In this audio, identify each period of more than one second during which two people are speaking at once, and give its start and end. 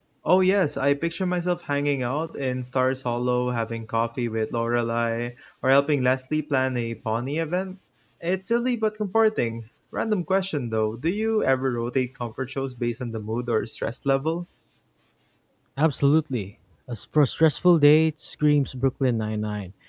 none

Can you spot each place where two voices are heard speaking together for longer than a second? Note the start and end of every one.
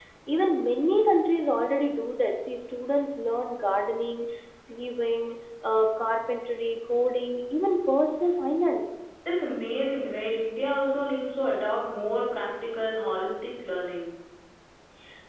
none

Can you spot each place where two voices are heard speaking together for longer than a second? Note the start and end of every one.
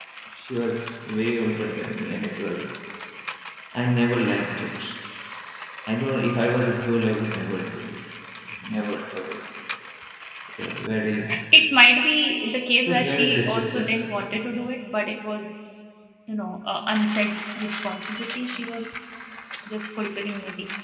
12.8-14.7

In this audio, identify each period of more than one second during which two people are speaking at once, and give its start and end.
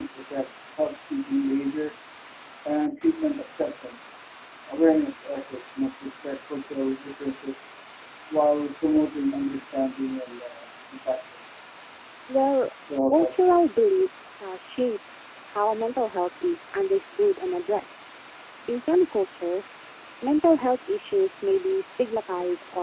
none

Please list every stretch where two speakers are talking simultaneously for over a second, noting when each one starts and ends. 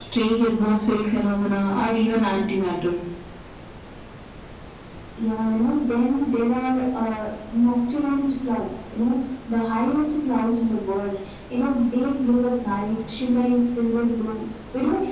none

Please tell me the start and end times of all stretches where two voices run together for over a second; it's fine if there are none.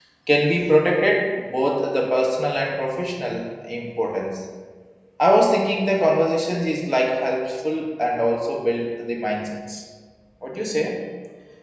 none

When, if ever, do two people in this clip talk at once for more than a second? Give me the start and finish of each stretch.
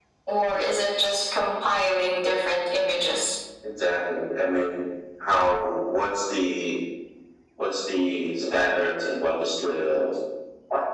none

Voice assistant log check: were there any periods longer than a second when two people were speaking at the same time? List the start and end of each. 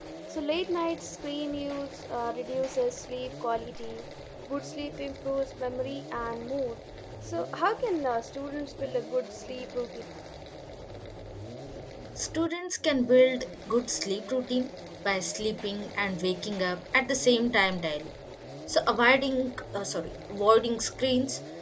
none

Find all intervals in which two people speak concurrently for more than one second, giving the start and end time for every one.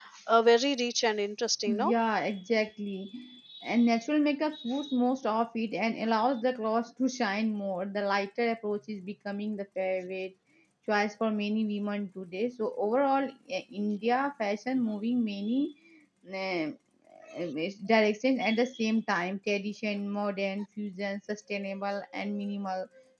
none

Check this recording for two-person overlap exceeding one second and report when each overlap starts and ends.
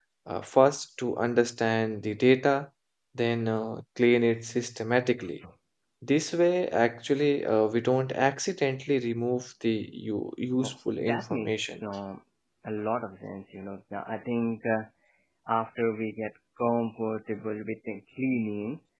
10.6-11.8

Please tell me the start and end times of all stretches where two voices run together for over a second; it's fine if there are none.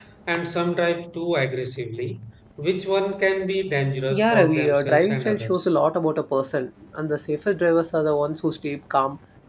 4.1-5.7

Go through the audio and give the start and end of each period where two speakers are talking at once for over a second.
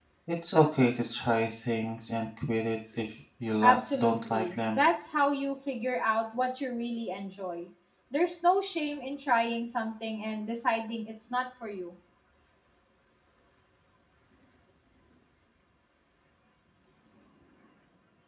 3.6-4.8

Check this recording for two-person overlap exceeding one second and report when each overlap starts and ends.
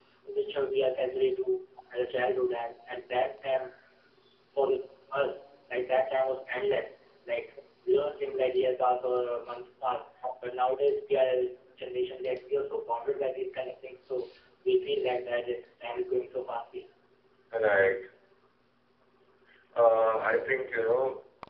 none

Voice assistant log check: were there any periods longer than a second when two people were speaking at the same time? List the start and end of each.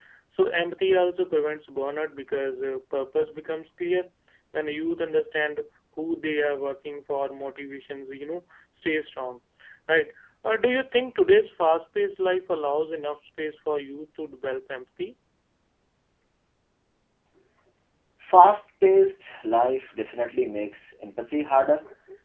none

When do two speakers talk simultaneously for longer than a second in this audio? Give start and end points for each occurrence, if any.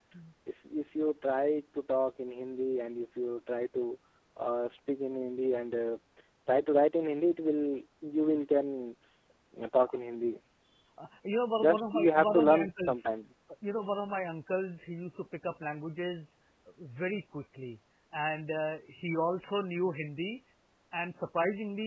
11.6-13.0

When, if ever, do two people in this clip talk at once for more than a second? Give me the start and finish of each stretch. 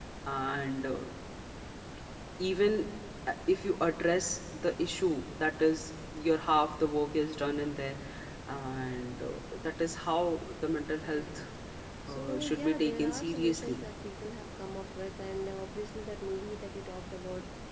12.1-13.8

